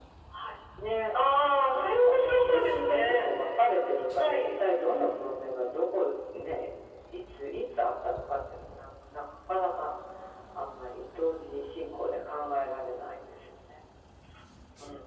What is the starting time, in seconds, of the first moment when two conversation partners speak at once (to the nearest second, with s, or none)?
2 s